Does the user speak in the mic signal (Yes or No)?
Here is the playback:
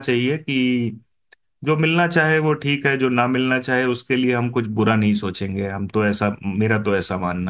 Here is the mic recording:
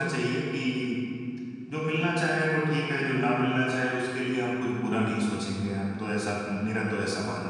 No